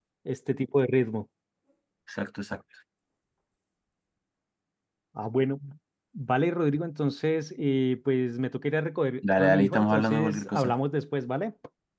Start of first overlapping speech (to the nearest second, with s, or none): 9 s